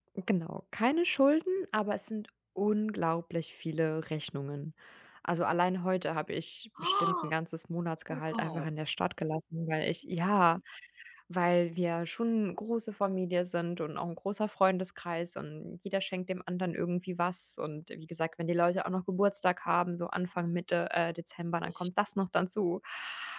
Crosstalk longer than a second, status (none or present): none